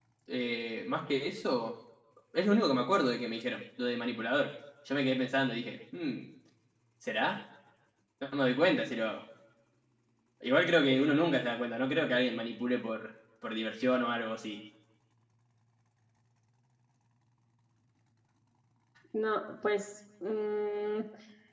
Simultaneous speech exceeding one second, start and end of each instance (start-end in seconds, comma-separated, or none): none